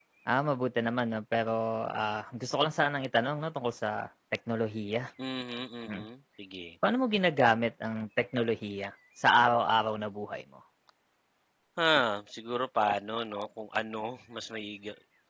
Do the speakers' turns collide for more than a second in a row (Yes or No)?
No